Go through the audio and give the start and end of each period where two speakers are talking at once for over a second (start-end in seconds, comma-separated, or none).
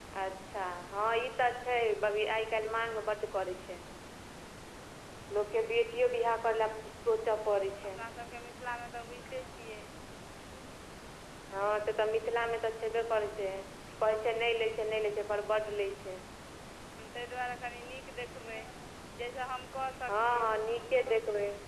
none